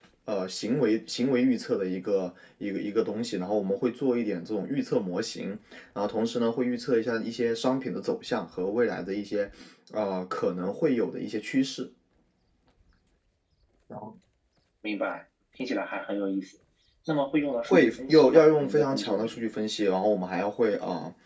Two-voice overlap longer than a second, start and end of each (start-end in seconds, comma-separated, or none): 17.6-19.4